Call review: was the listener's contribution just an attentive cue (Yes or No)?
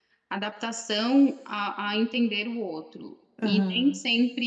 Yes